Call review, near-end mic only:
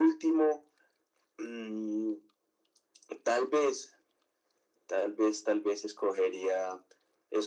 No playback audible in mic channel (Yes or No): No